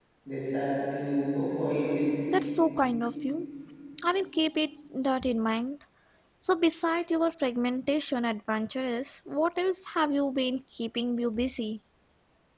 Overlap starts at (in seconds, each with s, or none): none